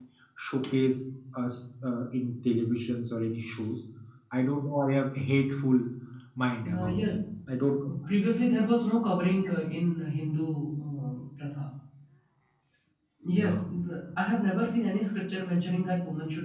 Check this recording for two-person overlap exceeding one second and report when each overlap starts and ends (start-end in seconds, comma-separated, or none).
none